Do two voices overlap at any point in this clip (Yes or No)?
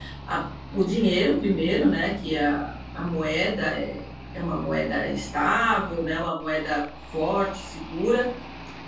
No